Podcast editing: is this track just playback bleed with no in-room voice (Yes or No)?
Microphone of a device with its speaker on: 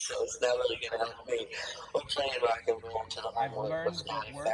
No